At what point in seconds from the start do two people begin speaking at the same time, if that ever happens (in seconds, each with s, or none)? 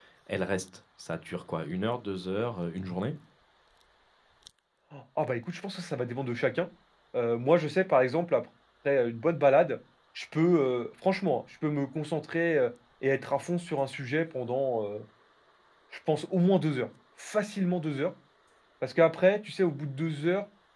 none